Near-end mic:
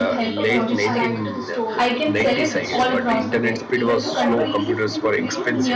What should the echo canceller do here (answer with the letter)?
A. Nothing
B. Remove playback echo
B